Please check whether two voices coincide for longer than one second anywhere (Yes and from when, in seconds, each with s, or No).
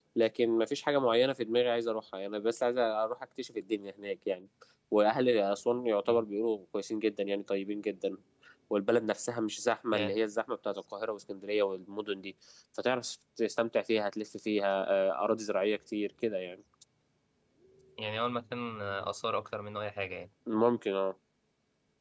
No